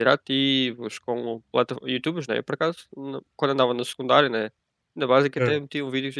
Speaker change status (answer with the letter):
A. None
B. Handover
A